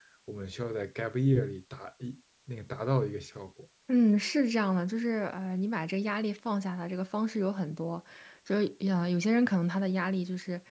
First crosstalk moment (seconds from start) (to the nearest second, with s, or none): none